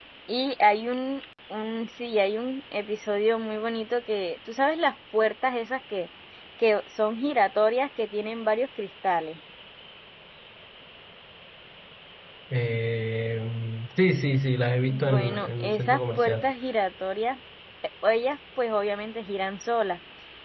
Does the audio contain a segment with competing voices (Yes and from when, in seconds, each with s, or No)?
Yes, from 14.9 s